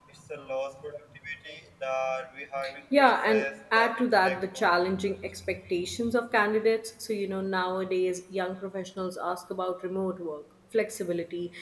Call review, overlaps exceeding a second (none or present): present